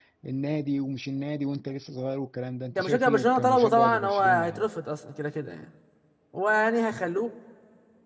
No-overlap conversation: No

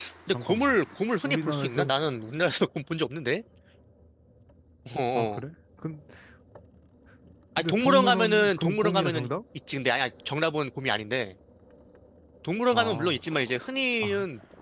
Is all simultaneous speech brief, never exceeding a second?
No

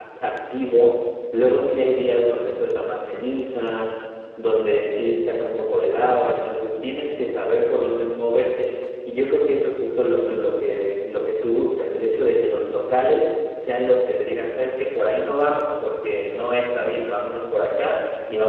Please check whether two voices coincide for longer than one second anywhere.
No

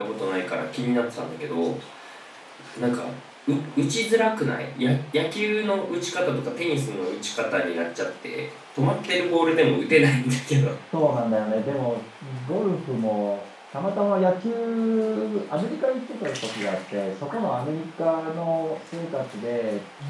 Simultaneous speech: No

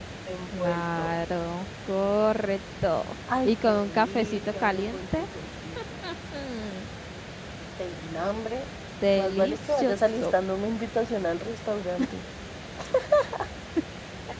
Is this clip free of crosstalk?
No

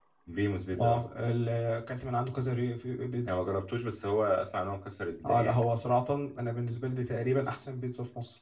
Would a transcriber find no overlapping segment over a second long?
Yes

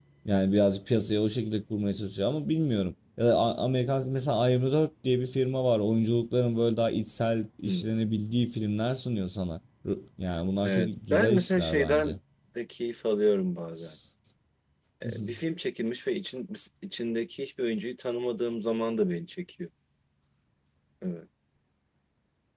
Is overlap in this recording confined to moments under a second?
No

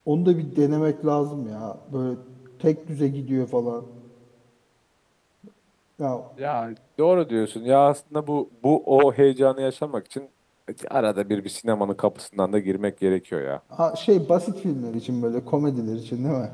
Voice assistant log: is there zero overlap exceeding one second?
Yes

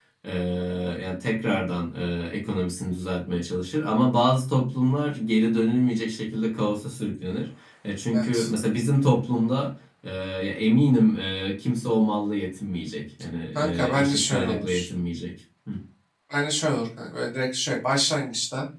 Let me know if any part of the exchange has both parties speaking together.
Yes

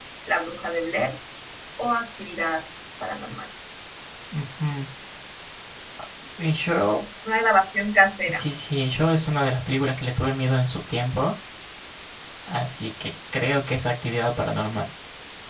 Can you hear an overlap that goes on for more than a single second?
No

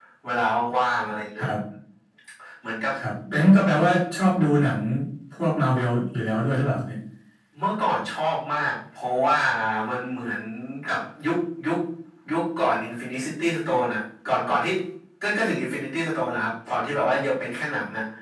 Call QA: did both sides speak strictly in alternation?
Yes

